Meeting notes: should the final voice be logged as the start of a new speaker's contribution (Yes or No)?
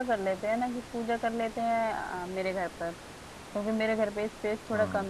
No